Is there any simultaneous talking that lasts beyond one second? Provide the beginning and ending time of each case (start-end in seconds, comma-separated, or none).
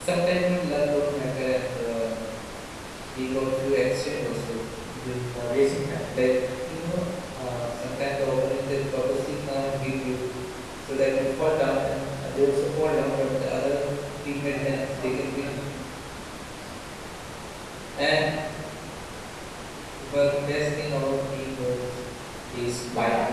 14.3-15.5